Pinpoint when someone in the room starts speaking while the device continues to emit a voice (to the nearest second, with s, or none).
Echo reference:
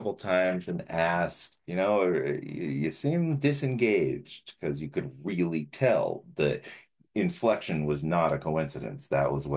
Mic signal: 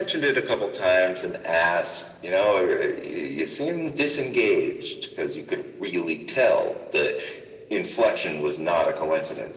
none